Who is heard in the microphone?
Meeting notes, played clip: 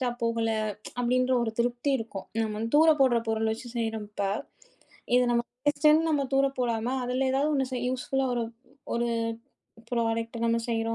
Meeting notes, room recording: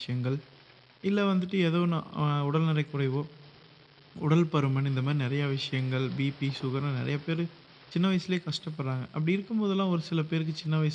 user only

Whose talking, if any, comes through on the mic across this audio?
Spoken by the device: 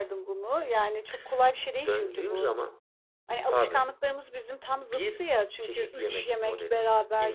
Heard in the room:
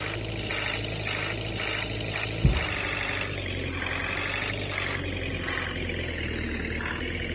neither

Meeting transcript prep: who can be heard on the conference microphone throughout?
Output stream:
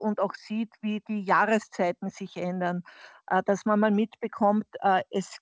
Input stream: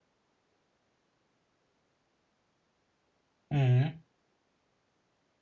user only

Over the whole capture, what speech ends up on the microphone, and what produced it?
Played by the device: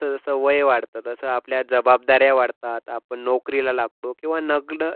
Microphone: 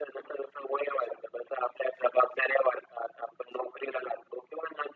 echo only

